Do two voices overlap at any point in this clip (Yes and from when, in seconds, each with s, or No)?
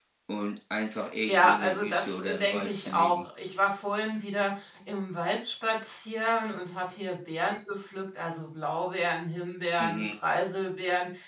Yes, from 1.3 s